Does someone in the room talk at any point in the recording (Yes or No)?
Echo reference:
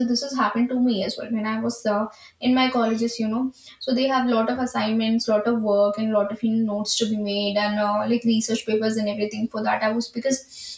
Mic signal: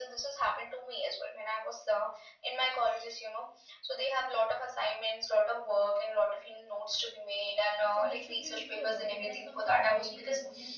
Yes